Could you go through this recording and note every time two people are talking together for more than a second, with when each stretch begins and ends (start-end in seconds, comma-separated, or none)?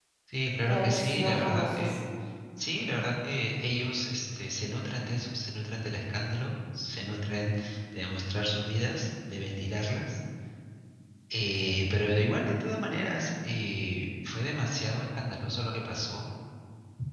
0.6-2.0